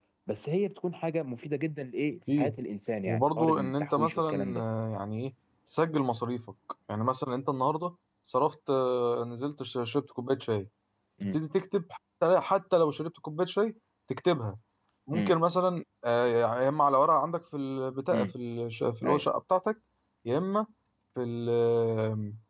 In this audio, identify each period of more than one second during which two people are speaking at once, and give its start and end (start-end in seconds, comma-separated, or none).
3.1-4.6